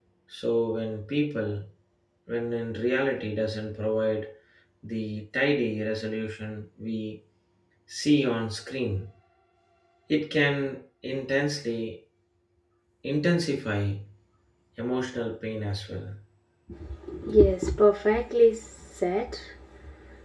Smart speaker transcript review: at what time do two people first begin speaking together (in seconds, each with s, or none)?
none